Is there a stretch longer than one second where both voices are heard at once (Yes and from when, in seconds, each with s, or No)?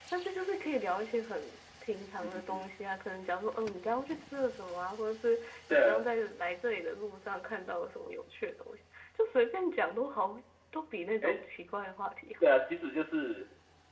No